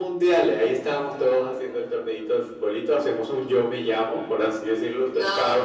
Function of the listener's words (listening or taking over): taking over